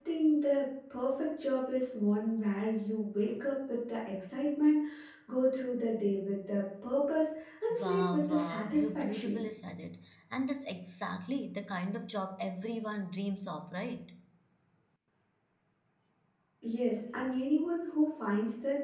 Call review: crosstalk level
present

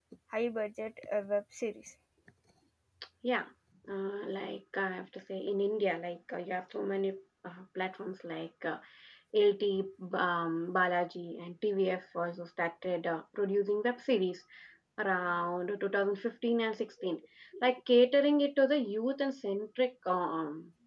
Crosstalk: none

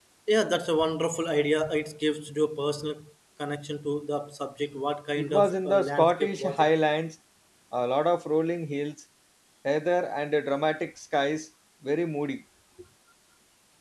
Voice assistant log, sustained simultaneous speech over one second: present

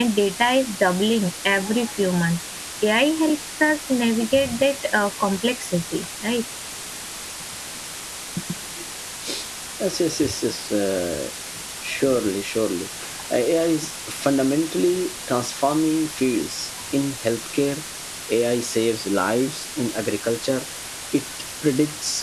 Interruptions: none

